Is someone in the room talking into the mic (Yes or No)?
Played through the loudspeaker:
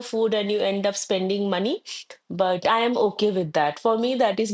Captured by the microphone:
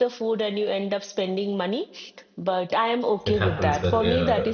Yes